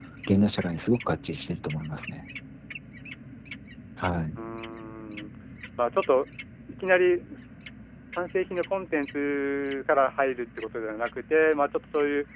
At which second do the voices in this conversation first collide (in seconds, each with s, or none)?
none